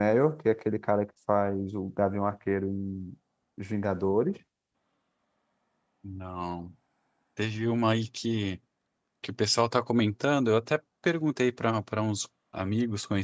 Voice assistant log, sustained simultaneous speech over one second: none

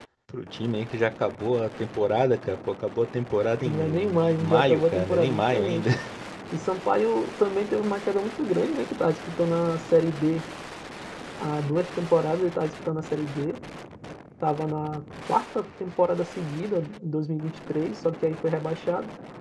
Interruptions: present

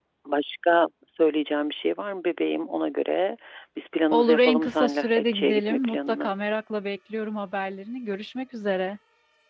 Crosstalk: present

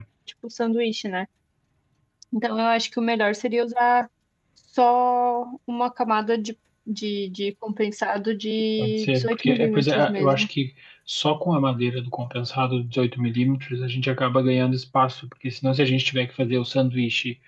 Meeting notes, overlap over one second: present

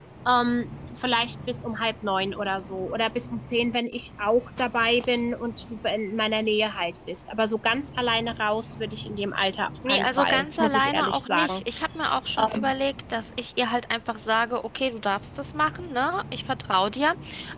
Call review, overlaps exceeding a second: present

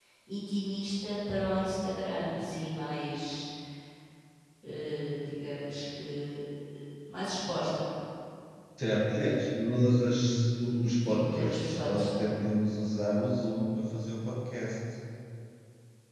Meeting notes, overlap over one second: present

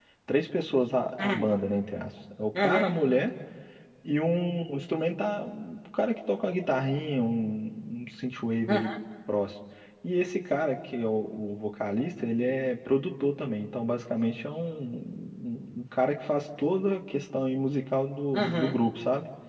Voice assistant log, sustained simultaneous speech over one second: none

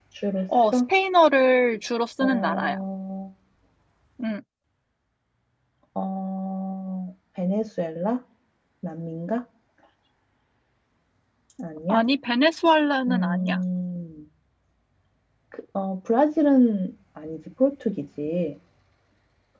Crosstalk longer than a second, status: none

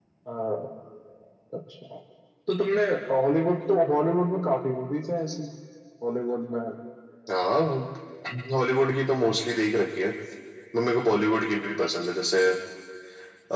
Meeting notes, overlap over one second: none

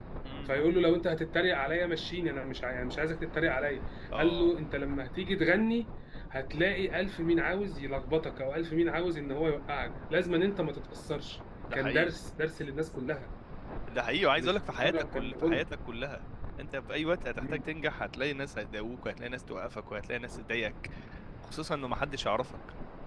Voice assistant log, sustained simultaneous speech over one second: present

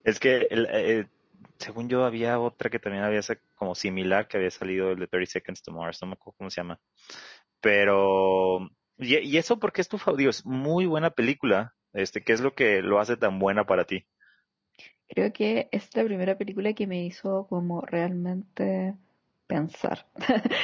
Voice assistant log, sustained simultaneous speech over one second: none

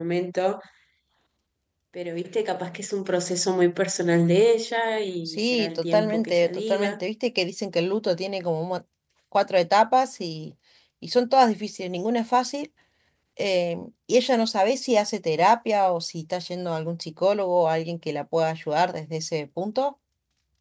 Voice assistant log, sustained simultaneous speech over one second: present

